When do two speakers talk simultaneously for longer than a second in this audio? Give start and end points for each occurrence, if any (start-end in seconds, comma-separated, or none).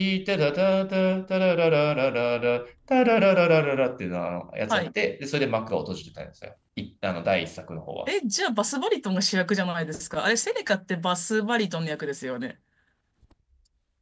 none